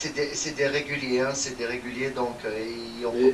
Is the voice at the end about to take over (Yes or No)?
Yes